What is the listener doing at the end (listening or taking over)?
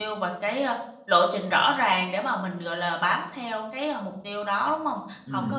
listening